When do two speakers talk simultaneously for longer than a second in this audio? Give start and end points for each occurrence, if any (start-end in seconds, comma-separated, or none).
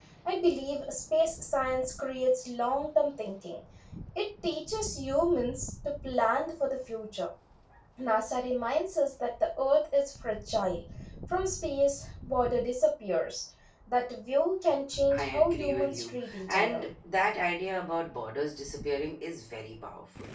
15.1-16.8